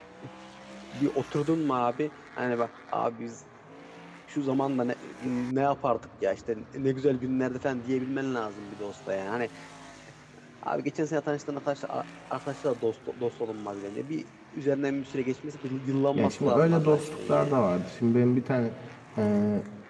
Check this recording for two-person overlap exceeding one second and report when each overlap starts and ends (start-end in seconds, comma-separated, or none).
16.1-17.5